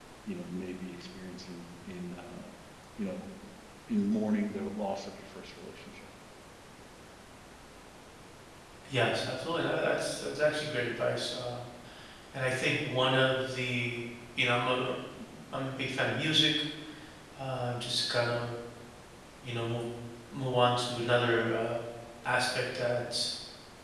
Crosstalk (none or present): none